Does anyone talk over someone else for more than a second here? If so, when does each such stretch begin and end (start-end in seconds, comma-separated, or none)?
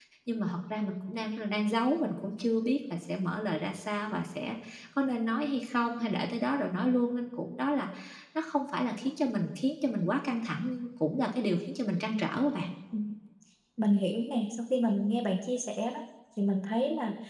none